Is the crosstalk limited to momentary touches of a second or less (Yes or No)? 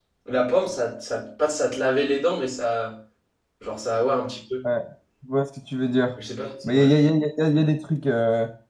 Yes